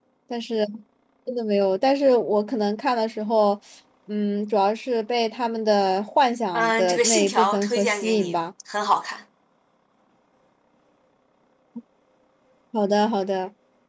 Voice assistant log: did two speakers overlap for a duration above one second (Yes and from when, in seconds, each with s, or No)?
Yes, from 6.5 s